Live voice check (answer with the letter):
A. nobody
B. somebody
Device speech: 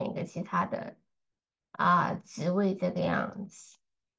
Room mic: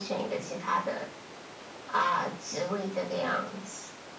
A